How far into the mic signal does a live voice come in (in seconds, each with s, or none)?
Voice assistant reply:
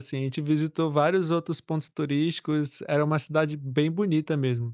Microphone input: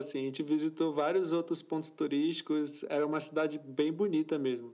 none